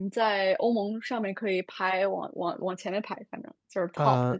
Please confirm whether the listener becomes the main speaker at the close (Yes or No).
Yes